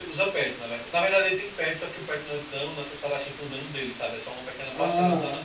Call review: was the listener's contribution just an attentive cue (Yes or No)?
No